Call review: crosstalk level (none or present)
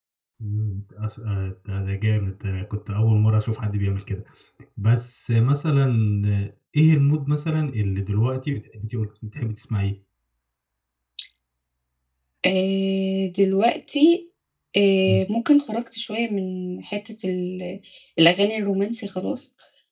none